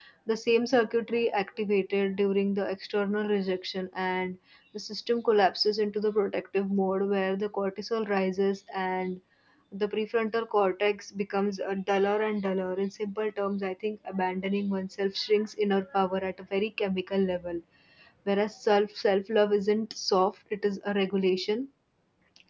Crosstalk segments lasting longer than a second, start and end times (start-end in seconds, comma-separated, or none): none